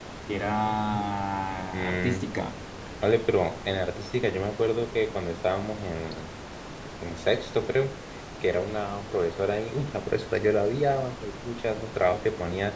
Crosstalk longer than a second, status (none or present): none